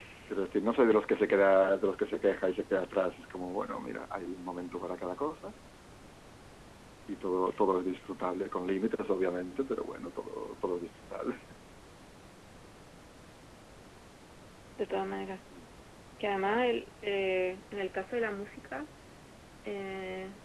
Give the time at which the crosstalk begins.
none

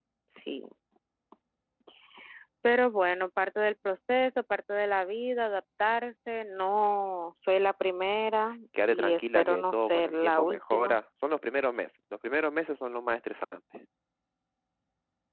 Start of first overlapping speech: 8.7 s

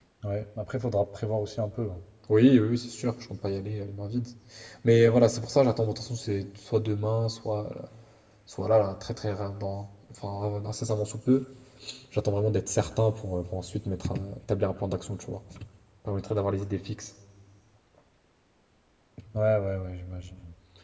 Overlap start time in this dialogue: none

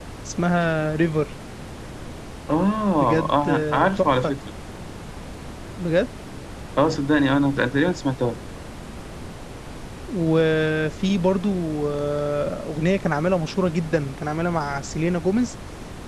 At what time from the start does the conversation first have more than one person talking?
3.0 s

